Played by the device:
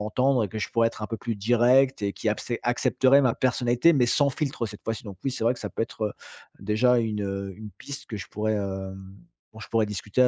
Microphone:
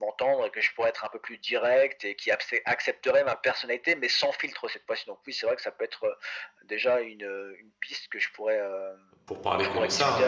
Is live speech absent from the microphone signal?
No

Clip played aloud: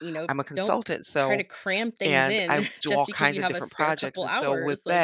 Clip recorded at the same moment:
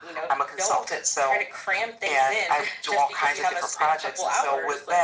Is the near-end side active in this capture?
No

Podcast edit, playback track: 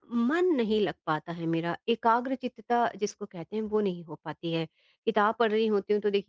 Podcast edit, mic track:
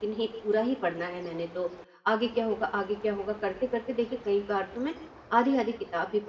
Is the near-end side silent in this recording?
No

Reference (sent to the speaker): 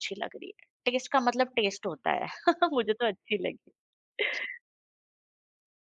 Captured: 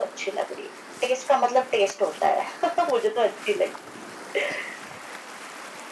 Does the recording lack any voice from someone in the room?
Yes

